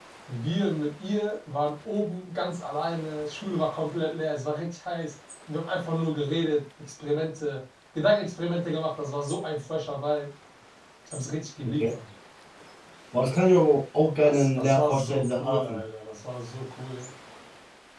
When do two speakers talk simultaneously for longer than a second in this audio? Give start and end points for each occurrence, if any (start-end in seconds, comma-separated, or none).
14.2-15.8